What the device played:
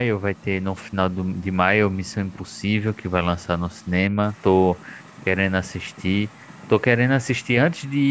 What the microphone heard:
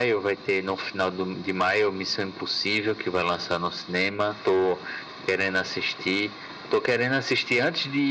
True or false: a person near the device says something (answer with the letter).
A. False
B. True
A